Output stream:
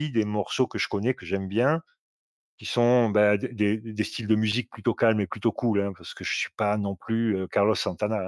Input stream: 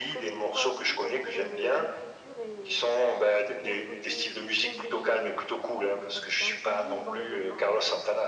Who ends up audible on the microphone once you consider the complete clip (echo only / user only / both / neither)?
both